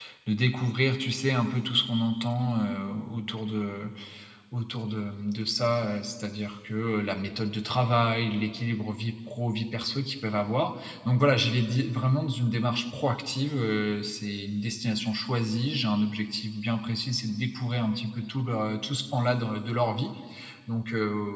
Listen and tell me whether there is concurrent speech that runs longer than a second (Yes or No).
No